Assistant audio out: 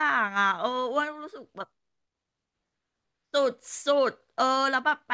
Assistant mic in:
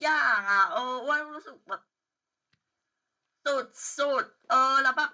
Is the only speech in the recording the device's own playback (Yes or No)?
Yes